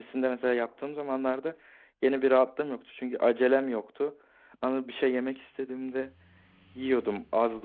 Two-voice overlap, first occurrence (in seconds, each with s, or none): none